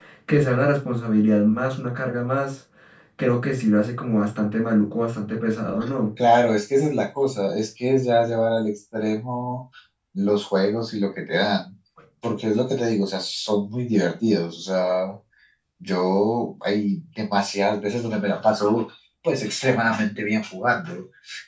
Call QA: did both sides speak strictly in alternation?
Yes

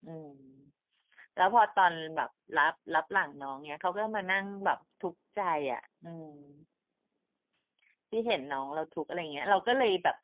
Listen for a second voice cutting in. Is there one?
No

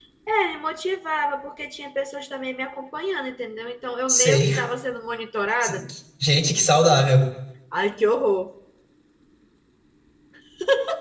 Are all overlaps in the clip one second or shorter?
Yes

